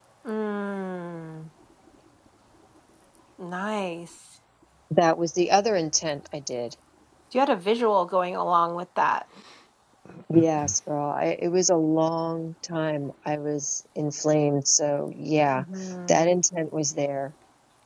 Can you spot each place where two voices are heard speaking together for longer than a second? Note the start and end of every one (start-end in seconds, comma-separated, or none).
none